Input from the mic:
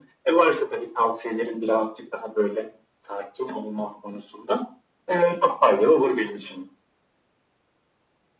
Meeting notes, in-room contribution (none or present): none